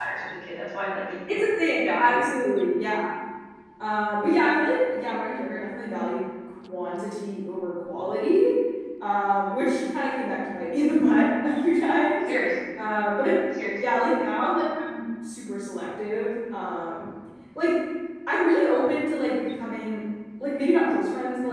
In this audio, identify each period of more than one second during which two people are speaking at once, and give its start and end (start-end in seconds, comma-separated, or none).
none